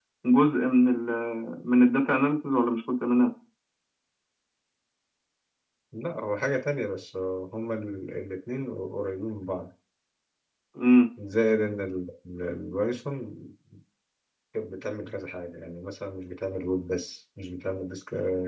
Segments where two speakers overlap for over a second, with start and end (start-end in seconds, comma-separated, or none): none